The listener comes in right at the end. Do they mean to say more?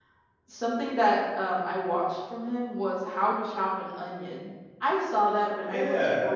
Yes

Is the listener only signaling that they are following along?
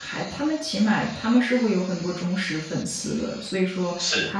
Yes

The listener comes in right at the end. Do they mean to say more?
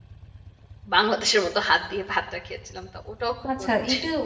Yes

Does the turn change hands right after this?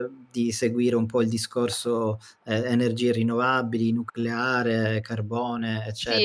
Yes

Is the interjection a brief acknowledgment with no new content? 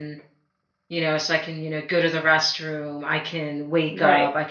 Yes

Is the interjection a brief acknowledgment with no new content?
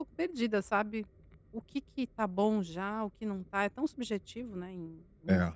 No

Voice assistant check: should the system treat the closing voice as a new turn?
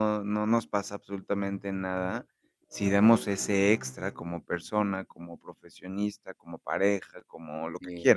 No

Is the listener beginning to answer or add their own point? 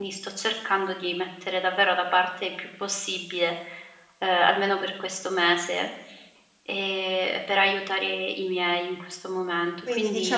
Yes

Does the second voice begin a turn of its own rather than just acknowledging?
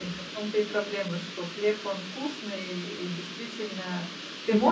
No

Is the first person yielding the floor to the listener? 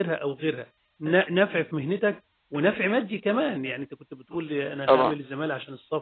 No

